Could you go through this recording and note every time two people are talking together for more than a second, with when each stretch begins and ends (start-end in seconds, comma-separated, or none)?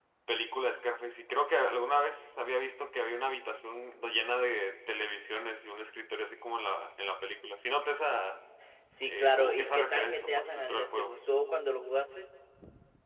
9.0-11.2